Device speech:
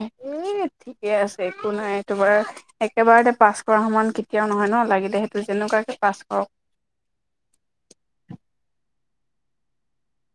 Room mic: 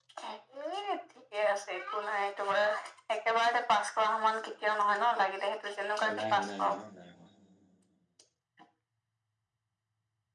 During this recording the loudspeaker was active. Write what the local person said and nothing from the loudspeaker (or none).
অ নাই হ নাই হ ন নাই হ।